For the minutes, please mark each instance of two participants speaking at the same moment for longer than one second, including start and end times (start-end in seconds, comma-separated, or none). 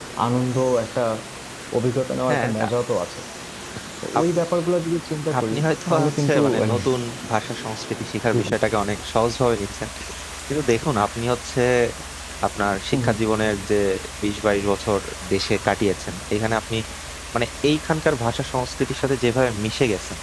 5.4-6.8